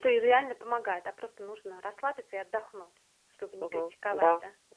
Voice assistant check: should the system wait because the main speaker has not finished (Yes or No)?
No